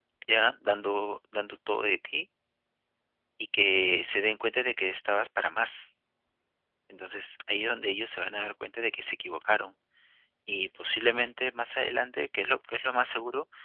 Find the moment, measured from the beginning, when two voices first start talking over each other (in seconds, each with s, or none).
none